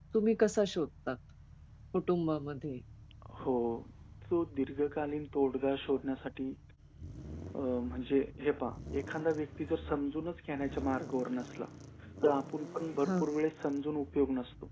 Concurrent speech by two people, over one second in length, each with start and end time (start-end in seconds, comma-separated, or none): none